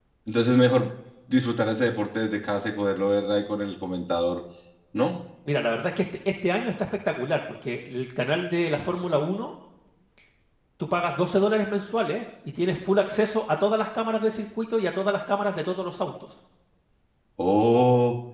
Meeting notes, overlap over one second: none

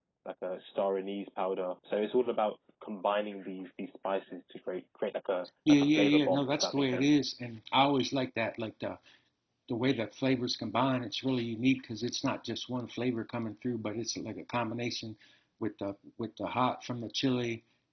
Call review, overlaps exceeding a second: present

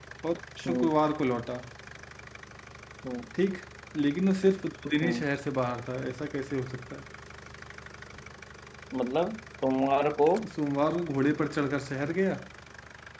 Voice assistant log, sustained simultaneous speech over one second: none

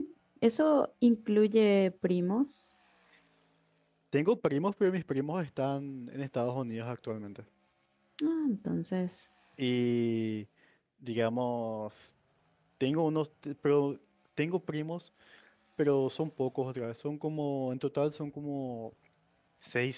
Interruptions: none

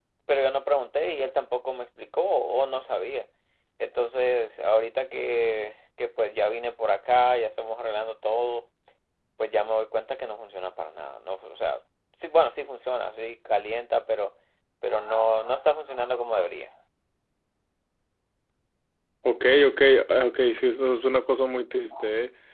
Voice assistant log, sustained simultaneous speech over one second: none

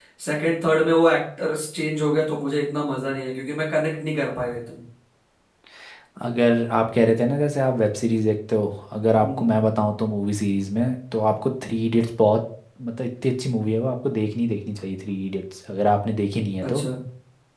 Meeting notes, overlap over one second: none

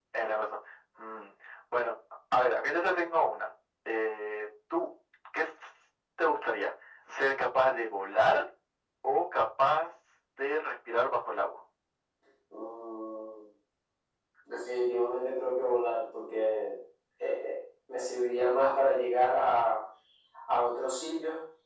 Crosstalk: none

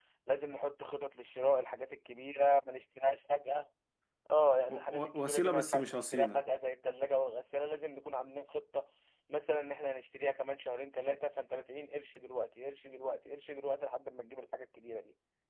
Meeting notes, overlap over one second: present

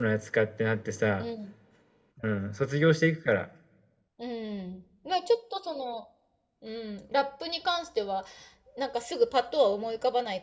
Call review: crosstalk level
none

